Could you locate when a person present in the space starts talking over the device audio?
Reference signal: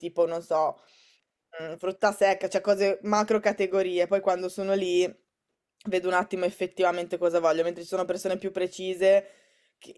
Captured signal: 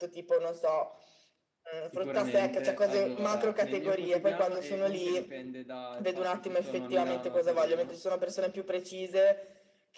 2 s

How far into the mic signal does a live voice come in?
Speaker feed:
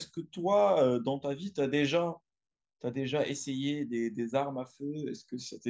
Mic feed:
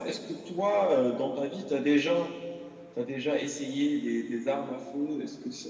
none

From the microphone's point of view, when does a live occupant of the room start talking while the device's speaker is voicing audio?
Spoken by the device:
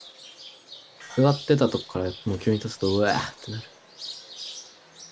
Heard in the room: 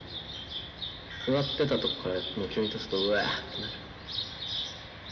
none

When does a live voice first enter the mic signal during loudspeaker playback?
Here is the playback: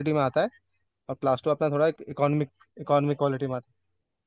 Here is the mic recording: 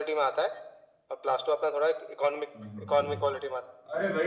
3 s

